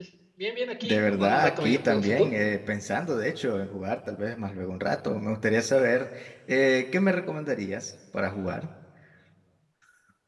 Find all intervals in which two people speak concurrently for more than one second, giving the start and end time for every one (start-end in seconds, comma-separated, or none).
0.8-2.3